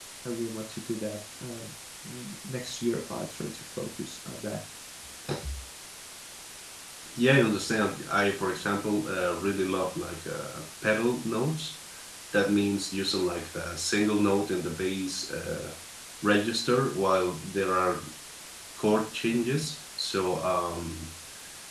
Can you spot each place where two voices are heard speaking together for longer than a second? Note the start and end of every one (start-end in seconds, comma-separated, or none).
none